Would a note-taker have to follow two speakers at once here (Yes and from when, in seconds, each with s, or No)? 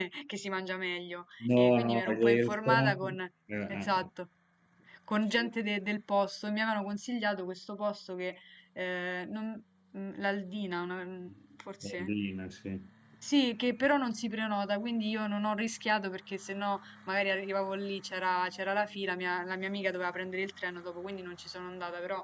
Yes, from 1.4 s